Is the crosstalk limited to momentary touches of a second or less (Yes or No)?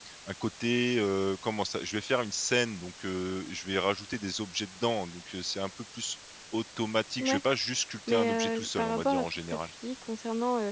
No